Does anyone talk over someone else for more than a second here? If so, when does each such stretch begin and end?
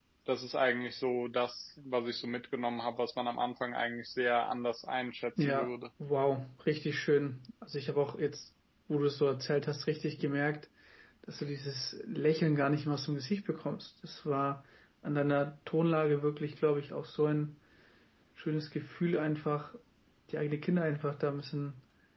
none

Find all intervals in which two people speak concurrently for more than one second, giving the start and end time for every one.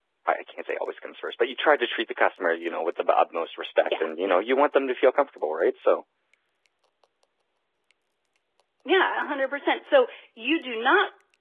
none

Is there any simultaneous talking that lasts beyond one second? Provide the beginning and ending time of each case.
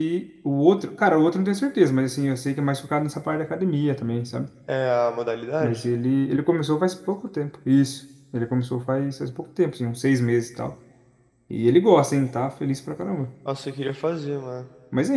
none

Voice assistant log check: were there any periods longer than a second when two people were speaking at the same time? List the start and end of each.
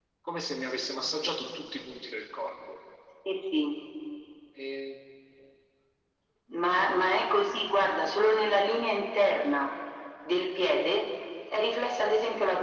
none

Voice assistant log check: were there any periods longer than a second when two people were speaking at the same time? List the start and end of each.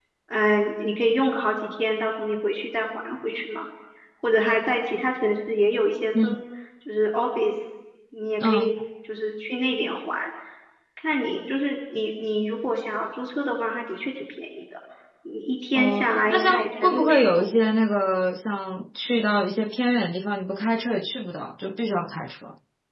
15.8-17.5

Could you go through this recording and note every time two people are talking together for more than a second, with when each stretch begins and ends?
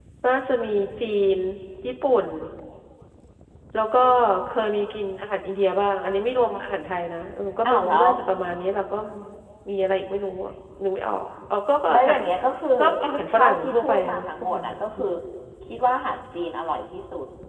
13.3-15.1

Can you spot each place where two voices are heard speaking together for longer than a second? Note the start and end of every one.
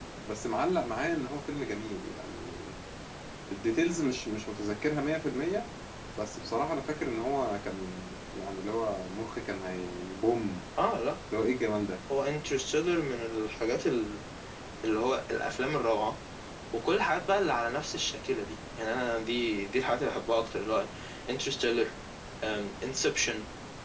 none

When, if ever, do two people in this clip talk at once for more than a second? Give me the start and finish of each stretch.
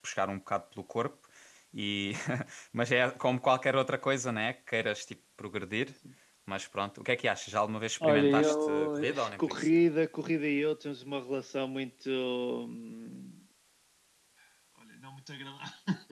8.0-9.7

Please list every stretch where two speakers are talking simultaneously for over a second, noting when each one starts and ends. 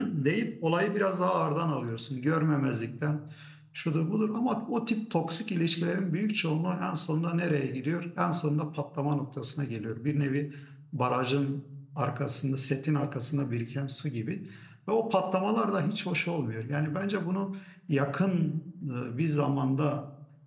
none

